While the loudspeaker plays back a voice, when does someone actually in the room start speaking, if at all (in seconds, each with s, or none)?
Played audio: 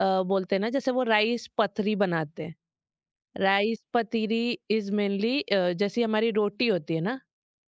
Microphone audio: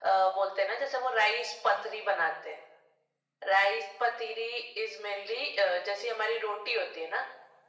none